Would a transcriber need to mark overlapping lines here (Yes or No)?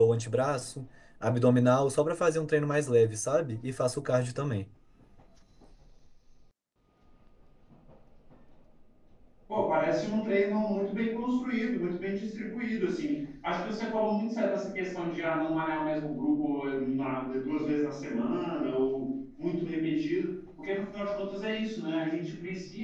No